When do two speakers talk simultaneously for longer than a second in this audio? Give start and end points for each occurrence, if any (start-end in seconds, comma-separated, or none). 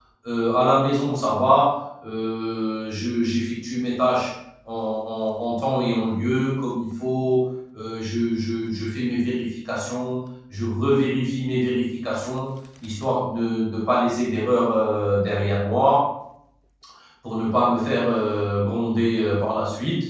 none